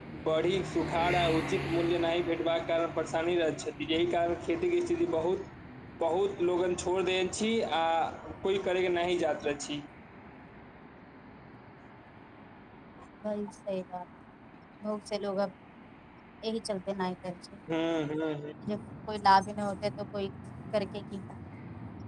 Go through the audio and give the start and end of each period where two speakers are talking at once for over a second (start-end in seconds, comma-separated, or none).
none